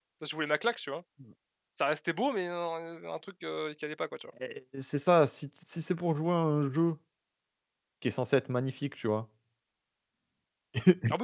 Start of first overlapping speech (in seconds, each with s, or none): none